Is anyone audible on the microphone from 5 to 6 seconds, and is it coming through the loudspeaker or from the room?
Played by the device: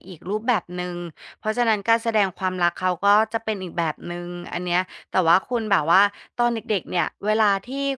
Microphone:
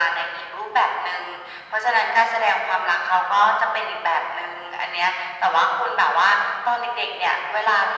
echo only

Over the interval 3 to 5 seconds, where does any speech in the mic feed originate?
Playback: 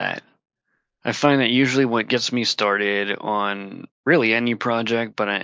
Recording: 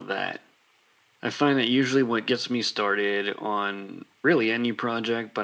echo only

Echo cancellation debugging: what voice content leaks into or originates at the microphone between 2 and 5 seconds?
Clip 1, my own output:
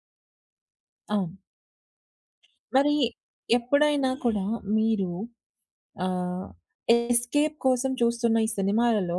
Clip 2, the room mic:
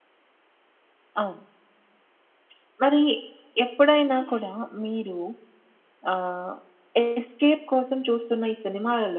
echo only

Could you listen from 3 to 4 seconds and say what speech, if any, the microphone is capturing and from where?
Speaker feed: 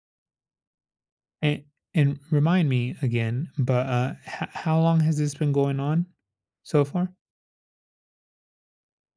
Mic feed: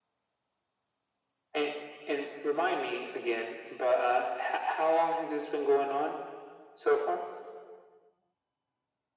echo only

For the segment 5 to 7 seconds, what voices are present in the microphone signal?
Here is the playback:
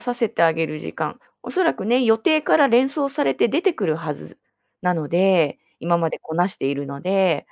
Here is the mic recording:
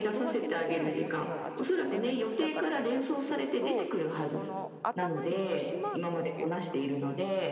both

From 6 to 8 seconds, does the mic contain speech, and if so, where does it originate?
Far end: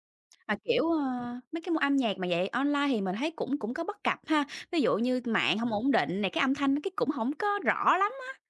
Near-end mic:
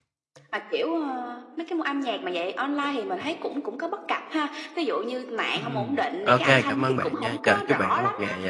both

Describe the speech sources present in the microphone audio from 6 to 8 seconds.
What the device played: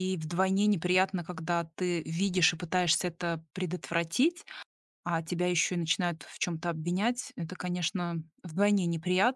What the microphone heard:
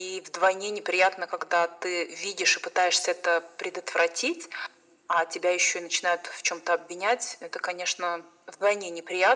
echo only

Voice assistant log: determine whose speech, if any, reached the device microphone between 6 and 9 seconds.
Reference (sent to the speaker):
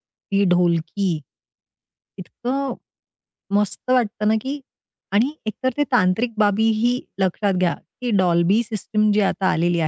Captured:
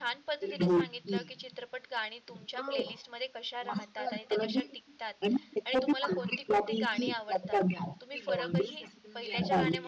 both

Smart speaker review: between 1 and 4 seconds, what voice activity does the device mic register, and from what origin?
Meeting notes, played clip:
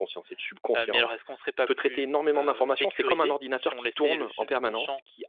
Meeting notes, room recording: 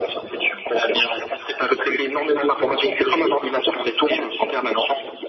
echo only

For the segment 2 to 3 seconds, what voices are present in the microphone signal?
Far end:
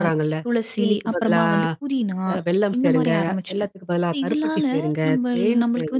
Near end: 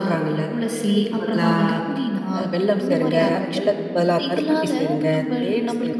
echo only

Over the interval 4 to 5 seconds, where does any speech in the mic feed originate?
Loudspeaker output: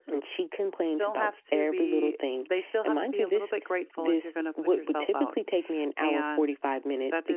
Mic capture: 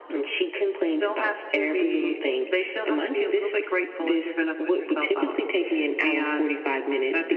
echo only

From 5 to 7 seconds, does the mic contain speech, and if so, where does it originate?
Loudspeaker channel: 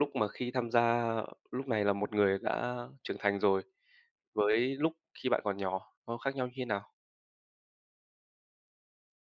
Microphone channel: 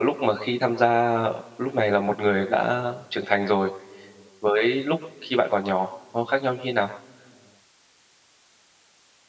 echo only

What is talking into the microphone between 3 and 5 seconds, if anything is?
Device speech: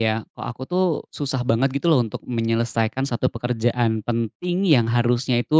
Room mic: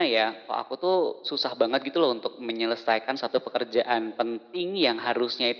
echo only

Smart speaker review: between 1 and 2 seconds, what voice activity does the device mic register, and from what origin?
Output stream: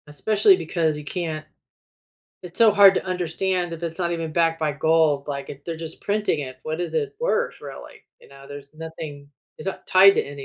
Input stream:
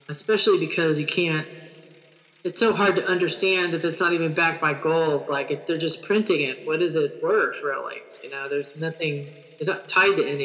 echo only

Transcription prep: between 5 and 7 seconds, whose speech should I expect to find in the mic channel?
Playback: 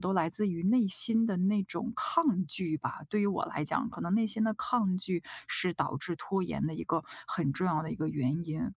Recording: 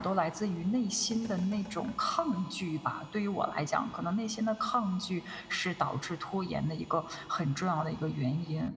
echo only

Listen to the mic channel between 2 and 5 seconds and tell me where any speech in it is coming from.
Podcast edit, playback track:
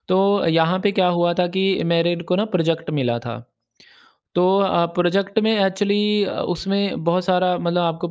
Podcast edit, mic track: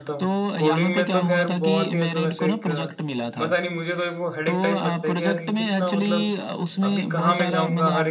both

